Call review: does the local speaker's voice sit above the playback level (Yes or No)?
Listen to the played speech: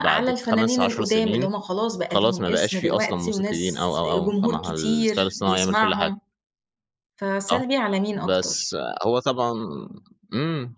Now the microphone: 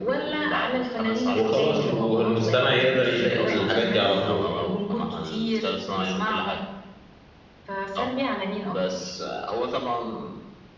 Yes